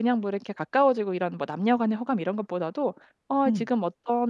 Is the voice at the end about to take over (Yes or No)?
No